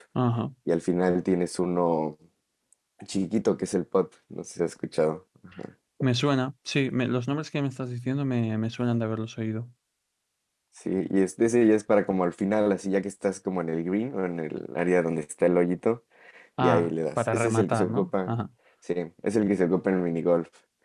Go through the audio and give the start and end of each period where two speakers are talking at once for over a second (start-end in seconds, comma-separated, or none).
16.6-18.3